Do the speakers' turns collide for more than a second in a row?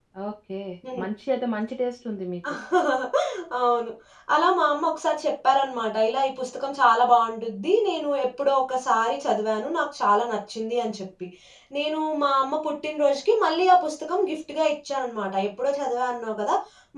No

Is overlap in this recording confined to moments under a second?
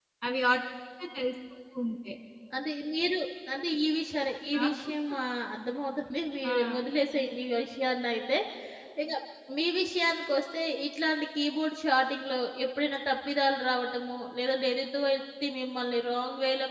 Yes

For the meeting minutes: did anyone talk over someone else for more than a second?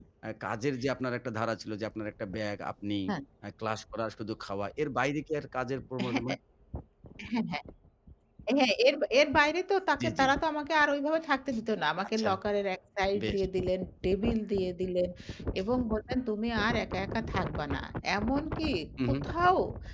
No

